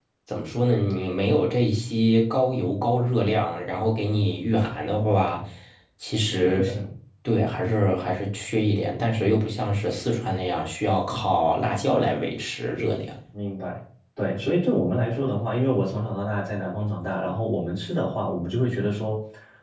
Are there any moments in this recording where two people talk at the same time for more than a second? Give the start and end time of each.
none

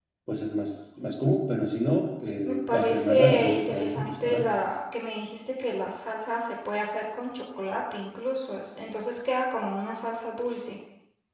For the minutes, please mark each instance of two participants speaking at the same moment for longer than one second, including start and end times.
2.4-4.5

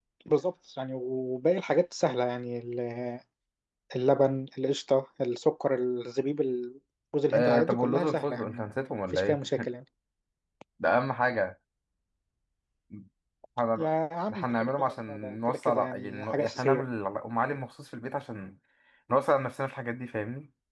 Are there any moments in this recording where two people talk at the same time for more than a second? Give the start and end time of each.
7.3-8.6, 14.3-16.8

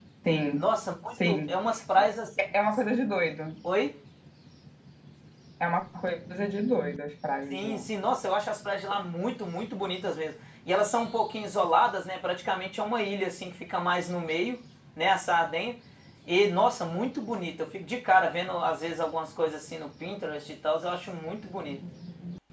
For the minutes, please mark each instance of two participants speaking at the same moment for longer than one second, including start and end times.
none

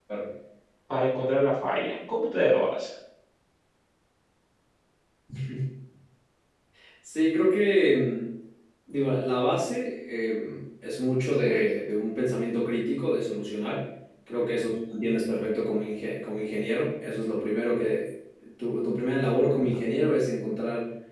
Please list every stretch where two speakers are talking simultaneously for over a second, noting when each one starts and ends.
none

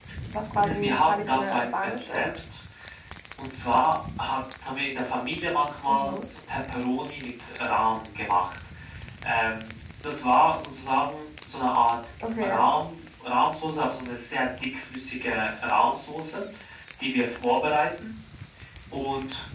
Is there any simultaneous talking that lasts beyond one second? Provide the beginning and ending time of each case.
0.6-2.3

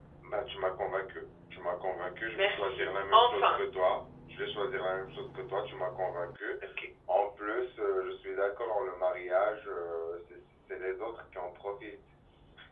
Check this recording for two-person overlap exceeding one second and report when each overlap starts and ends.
2.3-3.6

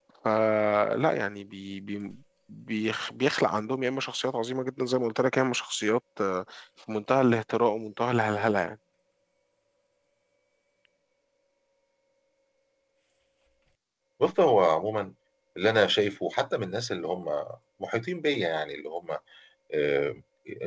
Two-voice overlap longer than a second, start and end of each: none

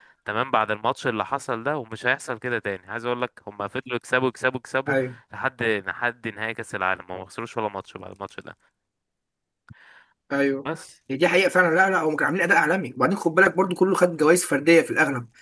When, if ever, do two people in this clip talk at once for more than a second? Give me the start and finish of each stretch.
none

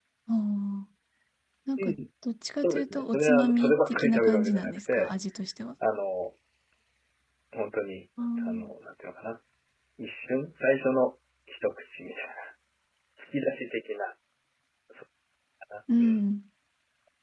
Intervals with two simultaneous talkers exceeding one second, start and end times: 2.6-5.1

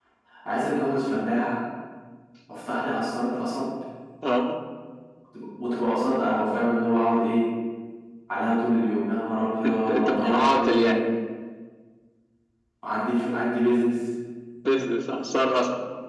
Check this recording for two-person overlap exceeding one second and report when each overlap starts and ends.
9.7-11.0

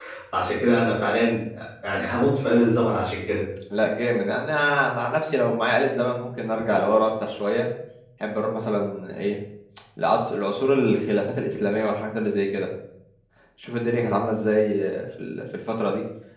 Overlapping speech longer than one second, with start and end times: none

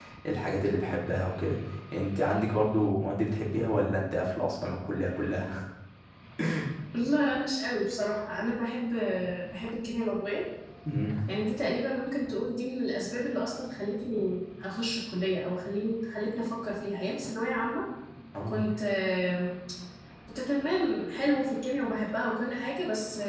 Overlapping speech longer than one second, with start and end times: none

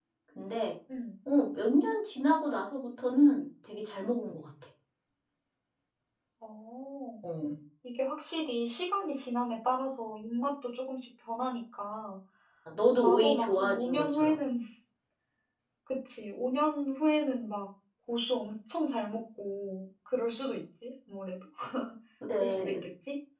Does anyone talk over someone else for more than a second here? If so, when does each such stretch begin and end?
13.0-14.4

